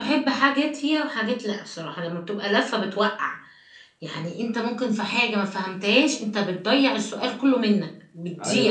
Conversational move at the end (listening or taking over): taking over